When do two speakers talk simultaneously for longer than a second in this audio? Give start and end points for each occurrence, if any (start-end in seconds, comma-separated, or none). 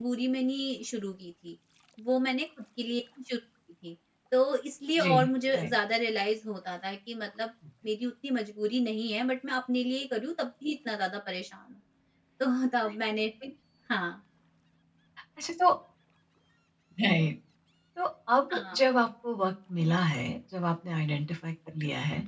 none